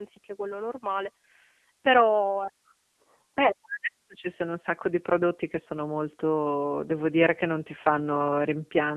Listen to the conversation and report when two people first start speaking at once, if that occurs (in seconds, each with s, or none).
none